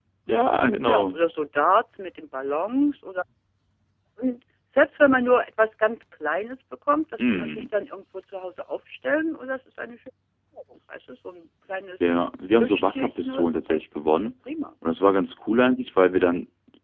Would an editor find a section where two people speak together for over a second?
Yes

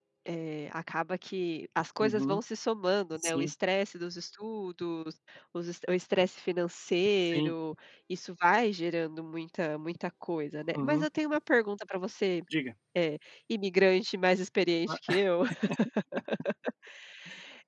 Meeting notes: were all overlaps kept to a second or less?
Yes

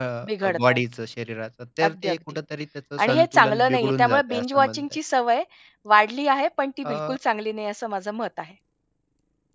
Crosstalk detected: Yes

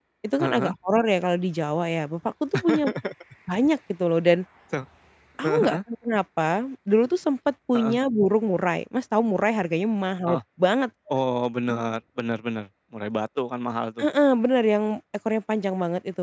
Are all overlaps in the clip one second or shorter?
Yes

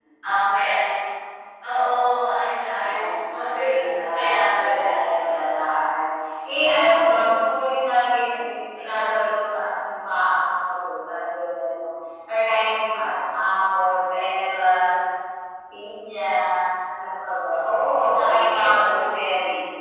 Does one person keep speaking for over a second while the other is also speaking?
Yes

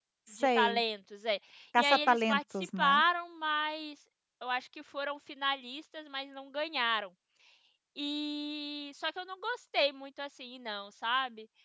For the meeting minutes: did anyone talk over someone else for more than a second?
Yes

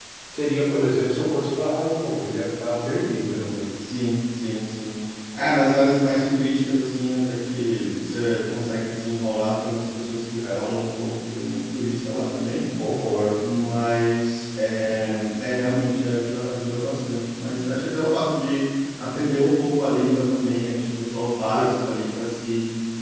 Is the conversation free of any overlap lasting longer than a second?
Yes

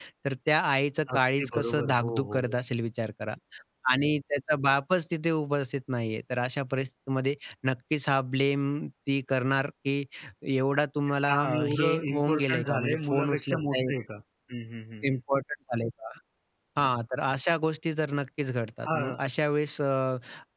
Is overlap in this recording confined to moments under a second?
No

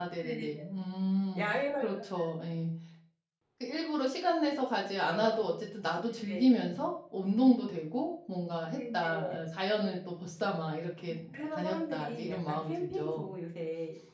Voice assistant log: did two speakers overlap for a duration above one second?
Yes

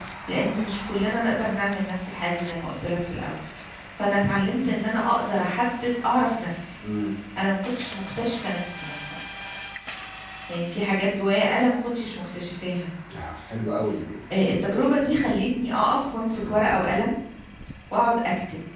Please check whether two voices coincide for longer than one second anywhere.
No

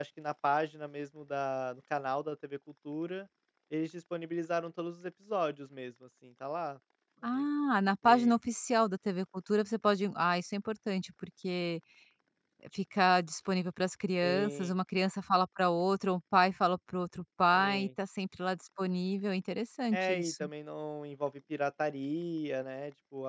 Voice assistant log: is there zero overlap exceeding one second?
Yes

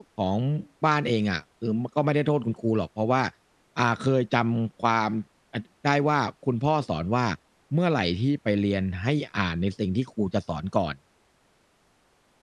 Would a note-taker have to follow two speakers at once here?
No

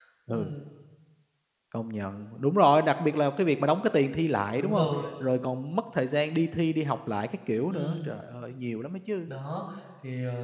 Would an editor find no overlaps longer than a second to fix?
Yes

